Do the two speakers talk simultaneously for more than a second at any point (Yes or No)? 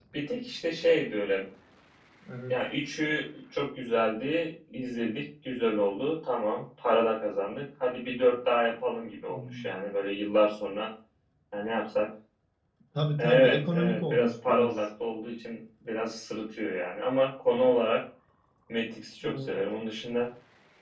Yes